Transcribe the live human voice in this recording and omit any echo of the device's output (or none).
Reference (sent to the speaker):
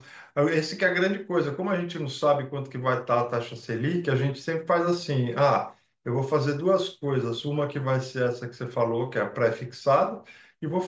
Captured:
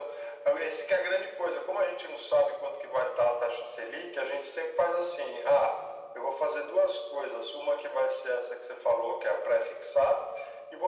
none